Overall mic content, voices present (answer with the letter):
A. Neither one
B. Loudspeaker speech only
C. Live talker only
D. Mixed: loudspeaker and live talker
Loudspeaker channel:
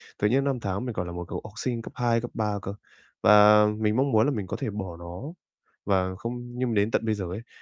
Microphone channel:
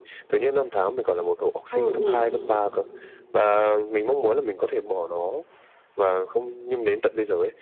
D